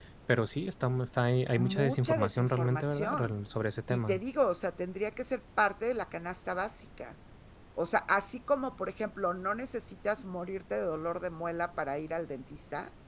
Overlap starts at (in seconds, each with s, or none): 1.6 s